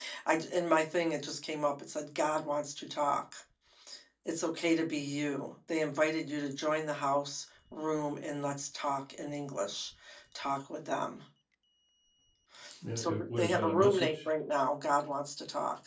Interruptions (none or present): present